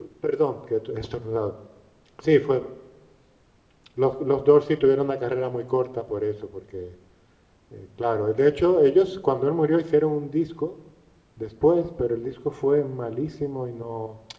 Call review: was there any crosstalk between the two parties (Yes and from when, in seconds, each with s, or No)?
No